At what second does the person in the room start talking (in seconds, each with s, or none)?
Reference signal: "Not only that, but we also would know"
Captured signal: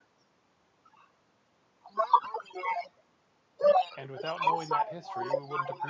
4.0 s